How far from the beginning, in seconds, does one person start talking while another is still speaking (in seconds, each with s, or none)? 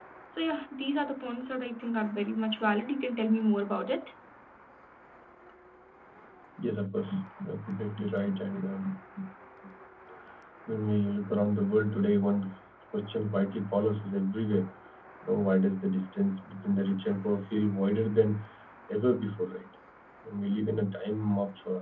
none